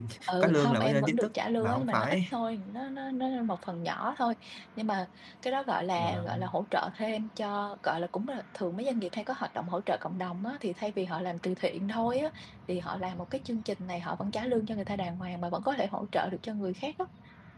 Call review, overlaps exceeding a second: present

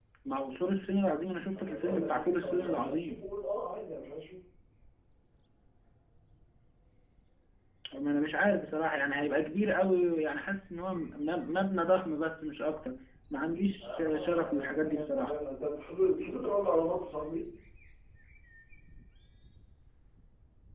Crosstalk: present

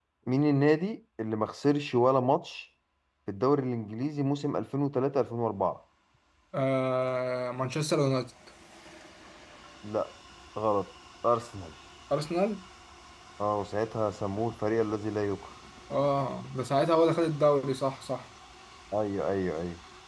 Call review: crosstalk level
none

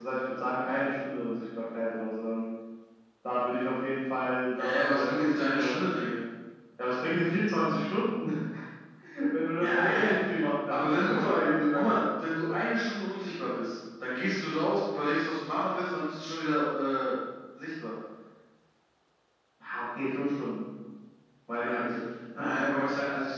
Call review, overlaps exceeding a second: present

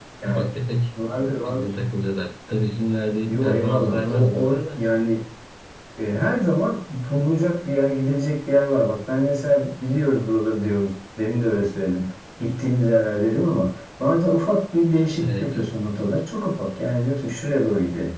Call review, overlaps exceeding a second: present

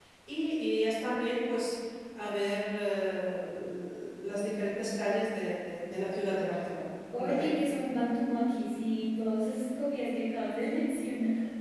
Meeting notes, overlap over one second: none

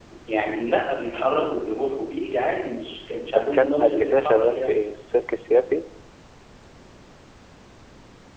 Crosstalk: present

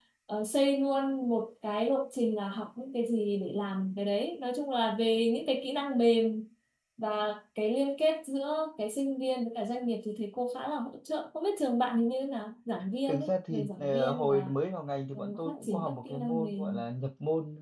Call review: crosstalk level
present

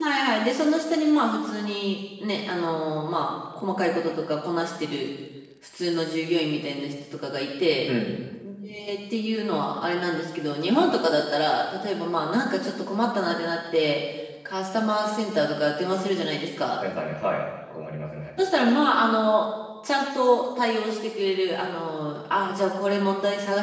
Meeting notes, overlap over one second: none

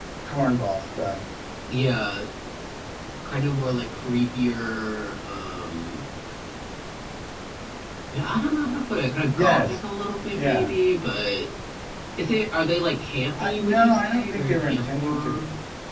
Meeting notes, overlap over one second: present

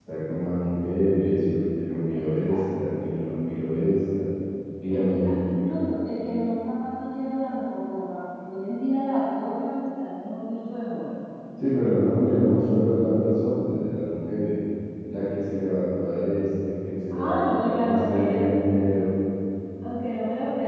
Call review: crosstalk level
present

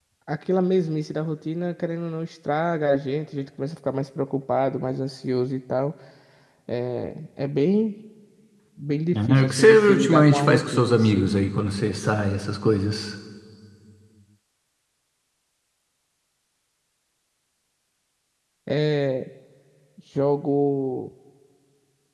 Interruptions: present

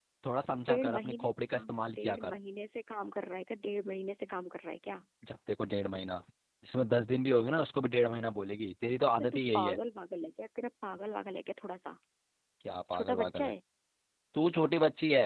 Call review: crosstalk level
present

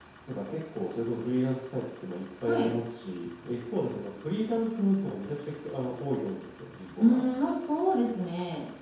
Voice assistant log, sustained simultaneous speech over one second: none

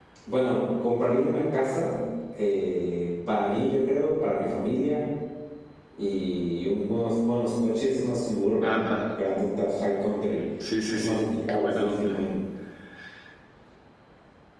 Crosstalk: present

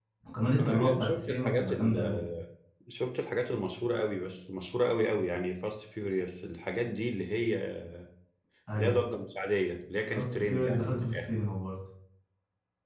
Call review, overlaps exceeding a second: present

